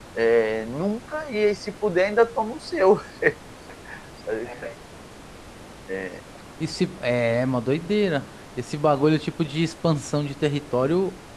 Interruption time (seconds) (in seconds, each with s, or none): none